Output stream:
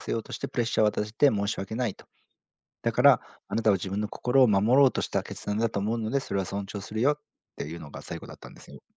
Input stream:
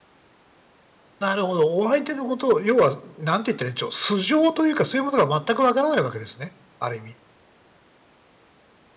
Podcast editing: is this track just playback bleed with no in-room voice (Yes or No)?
No